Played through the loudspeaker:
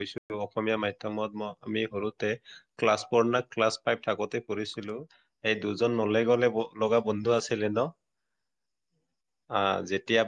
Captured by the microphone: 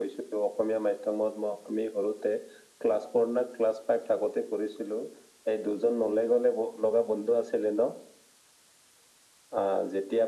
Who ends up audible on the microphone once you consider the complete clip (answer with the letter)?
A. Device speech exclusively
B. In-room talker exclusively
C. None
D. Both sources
A